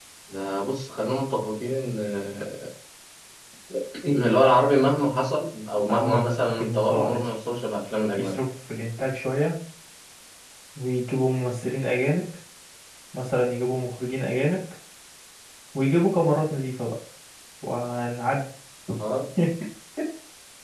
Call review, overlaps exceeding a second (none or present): present